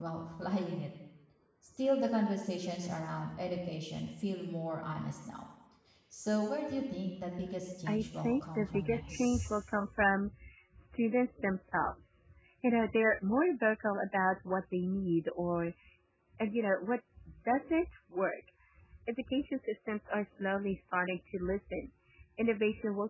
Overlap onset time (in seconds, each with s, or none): 7.9 s